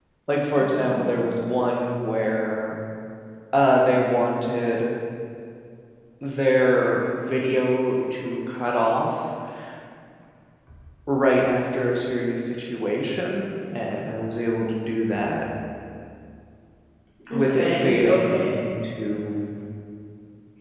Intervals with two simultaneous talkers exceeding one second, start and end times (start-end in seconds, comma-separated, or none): 17.3-18.6